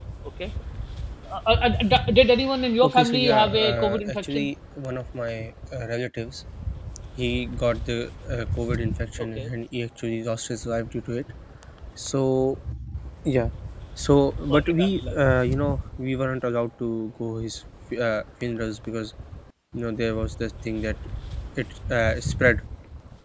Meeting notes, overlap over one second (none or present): present